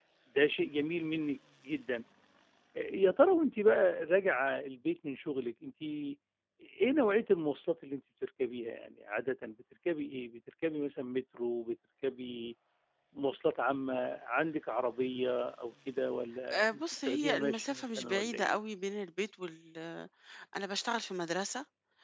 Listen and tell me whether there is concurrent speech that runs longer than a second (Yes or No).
Yes